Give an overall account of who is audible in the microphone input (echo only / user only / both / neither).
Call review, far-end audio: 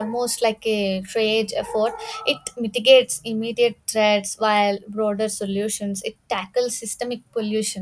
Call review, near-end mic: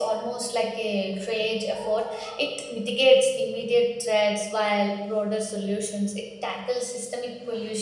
echo only